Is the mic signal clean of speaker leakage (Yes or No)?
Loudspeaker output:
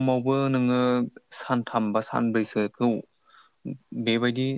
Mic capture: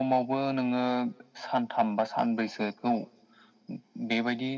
No